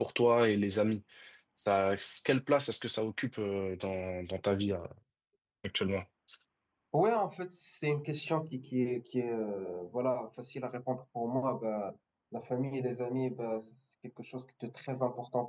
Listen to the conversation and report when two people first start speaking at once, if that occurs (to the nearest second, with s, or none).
none